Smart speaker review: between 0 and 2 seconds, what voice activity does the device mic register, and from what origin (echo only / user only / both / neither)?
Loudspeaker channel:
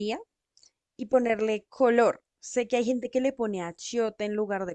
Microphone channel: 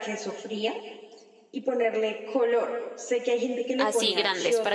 echo only